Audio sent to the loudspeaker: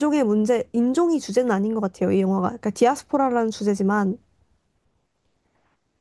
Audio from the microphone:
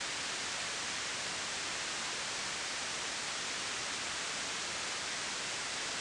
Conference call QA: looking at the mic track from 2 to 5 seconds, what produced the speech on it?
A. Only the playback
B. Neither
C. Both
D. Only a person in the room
B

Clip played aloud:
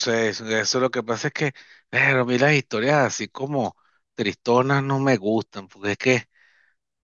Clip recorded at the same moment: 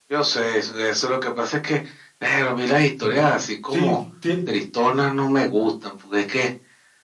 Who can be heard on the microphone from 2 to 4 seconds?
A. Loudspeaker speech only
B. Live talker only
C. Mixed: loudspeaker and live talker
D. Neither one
C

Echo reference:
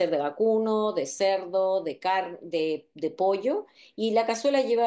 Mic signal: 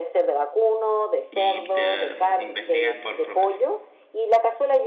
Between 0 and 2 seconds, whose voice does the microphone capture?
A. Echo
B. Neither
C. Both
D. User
C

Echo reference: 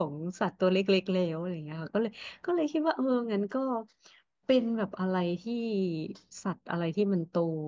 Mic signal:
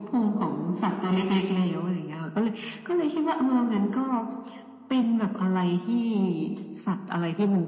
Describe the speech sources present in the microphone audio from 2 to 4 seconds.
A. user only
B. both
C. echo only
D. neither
C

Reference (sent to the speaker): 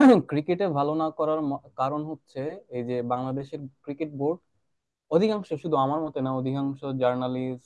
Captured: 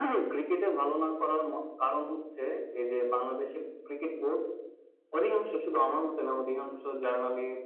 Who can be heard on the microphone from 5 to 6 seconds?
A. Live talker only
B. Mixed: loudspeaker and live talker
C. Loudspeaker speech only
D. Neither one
C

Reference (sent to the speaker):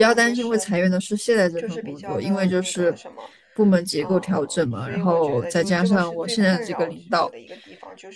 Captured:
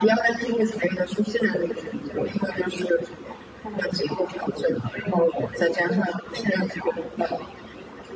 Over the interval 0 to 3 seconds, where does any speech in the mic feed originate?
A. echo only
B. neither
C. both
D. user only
A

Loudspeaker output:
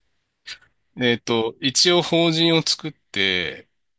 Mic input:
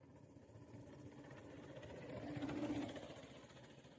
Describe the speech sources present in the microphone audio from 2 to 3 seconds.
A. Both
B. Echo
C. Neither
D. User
C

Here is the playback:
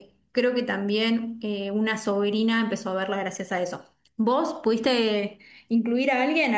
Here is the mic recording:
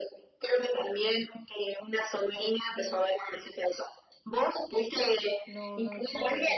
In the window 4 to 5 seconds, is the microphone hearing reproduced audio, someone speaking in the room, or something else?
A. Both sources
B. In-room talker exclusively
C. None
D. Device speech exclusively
D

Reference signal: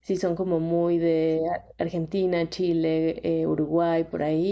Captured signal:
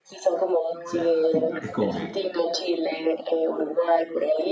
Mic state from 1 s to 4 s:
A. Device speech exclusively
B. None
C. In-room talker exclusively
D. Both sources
D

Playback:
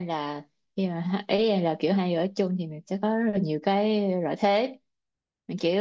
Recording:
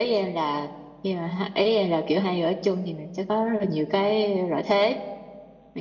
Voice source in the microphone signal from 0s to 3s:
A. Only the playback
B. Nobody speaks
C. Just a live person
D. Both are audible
A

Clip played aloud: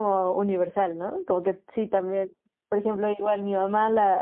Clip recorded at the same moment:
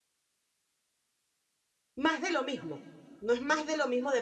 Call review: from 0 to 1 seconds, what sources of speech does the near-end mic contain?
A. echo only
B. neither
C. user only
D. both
B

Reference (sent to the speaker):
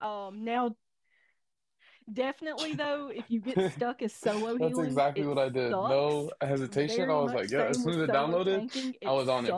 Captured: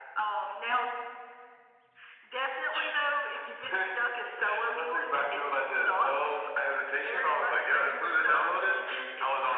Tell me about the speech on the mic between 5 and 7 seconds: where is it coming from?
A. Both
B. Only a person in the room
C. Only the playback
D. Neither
C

